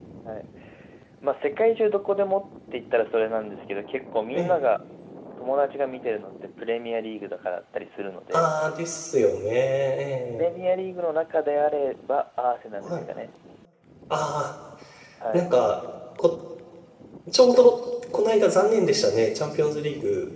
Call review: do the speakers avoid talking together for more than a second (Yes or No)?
Yes